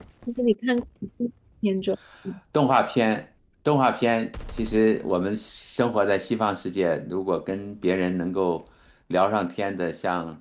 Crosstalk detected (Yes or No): No